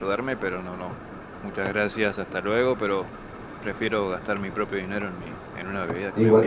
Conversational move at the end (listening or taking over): taking over